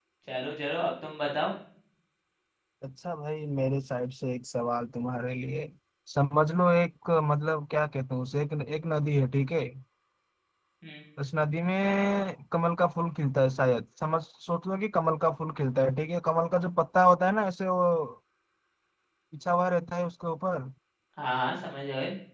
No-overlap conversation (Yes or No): Yes